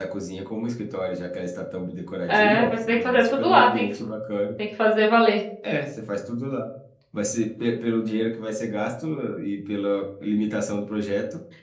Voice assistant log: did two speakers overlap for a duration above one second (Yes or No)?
Yes